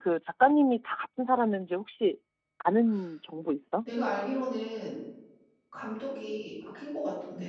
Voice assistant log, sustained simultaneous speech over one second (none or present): none